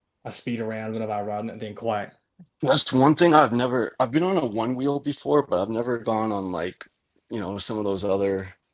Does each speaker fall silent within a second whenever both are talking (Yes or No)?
Yes